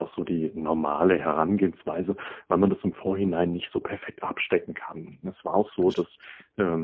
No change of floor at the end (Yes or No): Yes